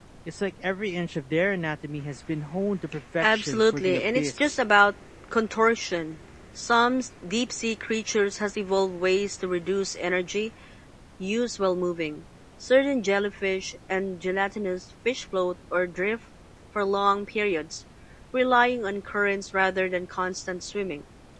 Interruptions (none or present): present